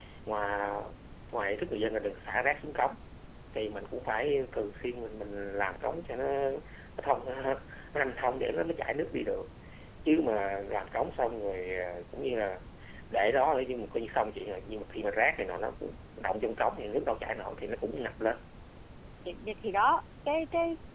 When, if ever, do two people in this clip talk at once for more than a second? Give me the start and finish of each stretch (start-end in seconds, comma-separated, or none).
none